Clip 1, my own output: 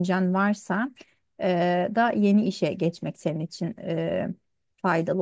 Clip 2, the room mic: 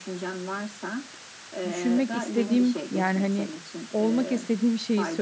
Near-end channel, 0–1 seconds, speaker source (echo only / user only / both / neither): echo only